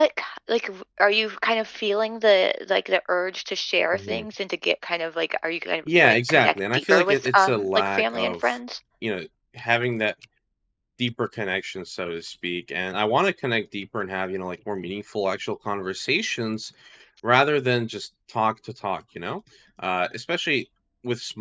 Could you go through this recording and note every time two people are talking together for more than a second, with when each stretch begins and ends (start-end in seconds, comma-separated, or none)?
5.9-8.6